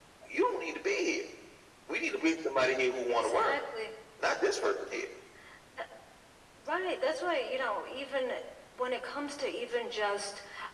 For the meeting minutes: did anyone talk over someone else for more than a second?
No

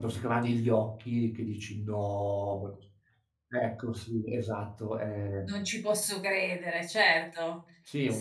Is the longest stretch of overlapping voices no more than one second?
Yes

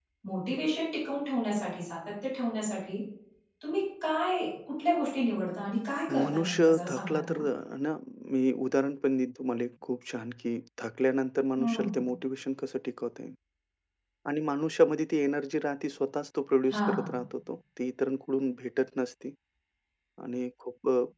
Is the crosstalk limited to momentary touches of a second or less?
No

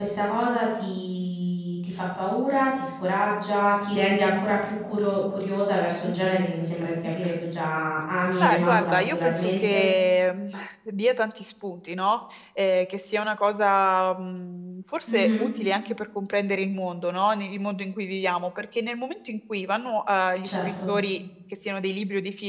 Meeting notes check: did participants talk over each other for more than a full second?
Yes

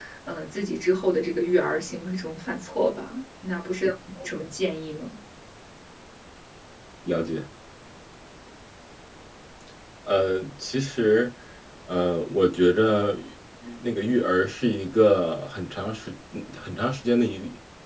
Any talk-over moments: No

